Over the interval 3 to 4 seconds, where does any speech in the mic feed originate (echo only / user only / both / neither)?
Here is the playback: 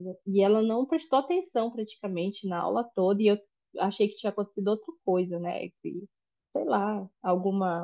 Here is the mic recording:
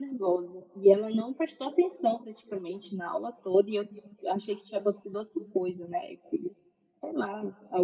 echo only